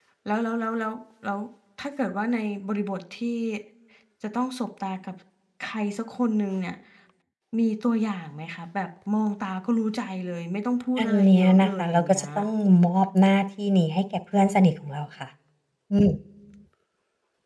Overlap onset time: 11.0 s

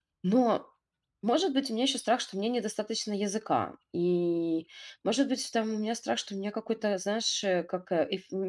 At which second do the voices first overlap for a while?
none

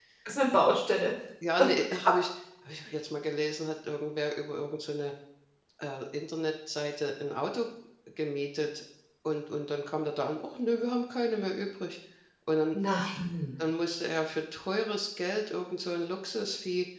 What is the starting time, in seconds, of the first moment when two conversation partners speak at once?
none

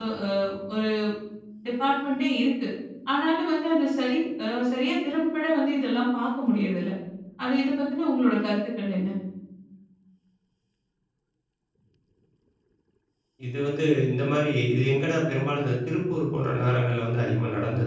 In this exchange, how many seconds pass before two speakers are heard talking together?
none

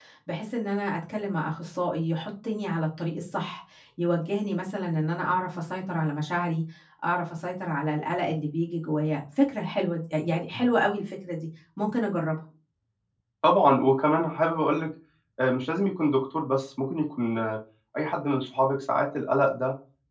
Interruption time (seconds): none

